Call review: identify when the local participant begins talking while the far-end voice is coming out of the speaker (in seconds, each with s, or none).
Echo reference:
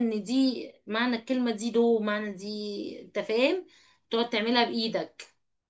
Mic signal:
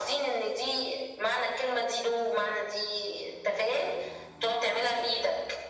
none